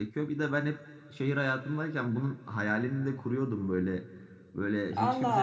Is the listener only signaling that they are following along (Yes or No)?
No